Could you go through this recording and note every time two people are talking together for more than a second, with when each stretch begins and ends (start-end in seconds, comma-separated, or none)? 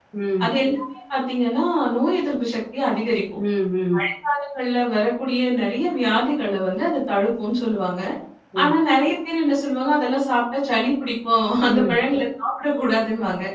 none